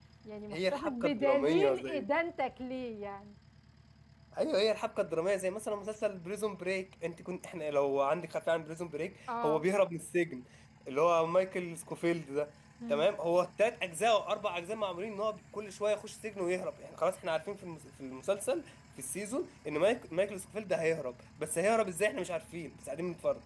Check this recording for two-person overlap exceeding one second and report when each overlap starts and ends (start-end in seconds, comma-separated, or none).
0.5-2.0